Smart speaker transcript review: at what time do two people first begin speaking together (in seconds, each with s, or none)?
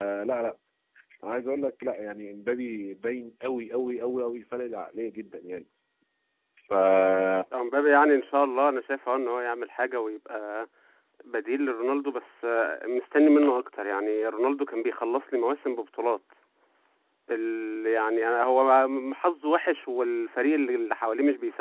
none